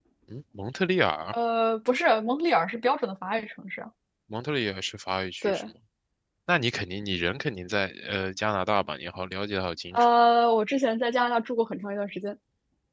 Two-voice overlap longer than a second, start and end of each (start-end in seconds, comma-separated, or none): none